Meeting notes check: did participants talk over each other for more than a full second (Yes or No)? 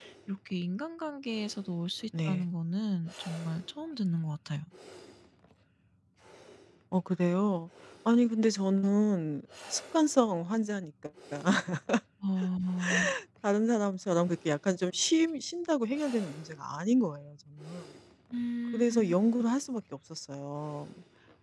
No